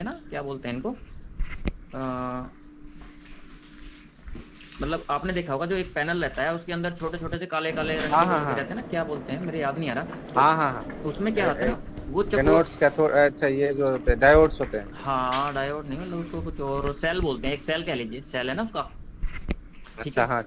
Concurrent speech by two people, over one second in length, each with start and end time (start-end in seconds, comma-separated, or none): none